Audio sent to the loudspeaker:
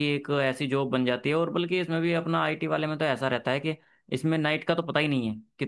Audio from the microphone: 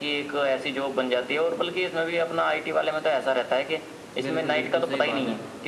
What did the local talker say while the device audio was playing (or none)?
बिल्कुल बिल्कुल सही बात है